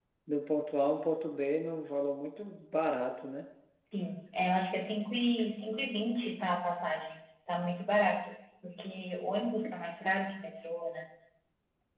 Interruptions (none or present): none